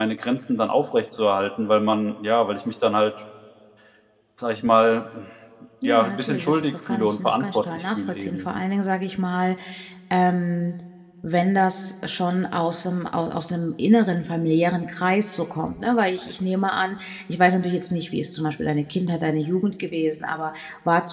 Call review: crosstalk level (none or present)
present